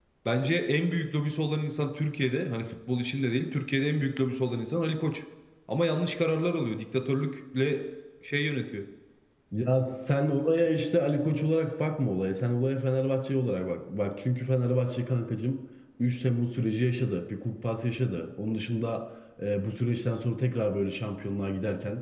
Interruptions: none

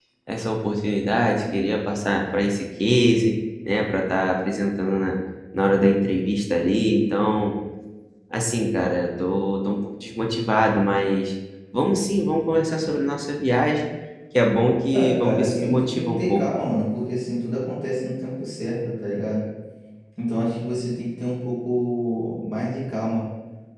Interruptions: present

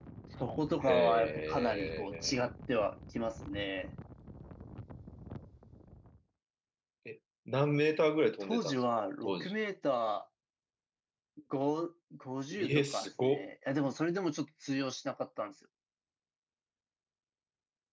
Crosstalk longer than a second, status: present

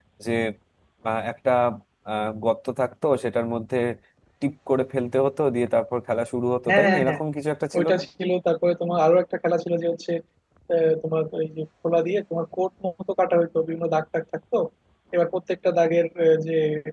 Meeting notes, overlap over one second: none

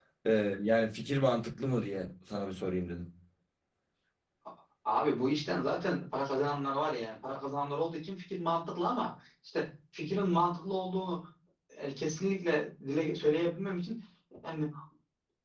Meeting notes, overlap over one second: none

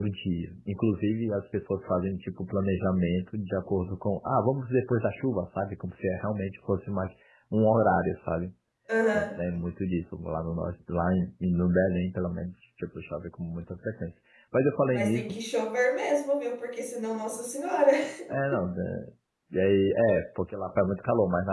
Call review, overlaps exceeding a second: none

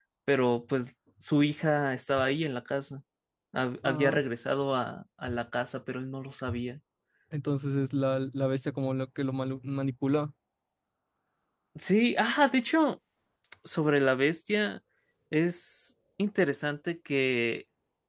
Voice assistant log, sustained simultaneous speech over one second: none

